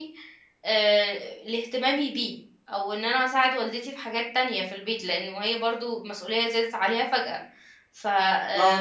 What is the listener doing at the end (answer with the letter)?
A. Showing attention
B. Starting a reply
B